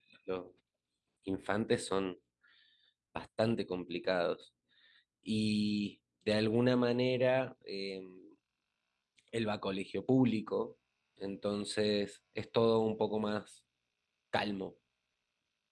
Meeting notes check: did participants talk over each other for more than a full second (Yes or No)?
No